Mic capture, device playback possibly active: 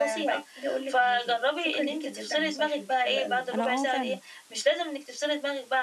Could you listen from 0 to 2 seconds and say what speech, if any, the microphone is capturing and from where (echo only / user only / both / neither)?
echo only